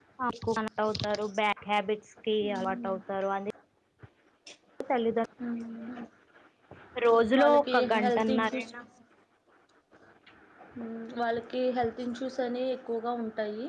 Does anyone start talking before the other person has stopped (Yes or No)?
Yes